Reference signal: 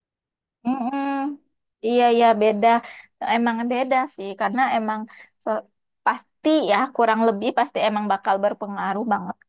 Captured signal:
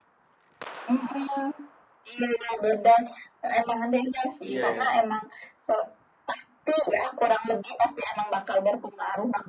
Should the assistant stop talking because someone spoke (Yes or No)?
Yes